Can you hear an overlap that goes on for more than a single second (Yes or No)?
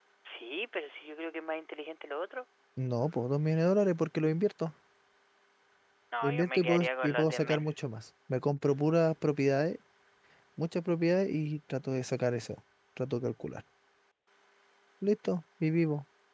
Yes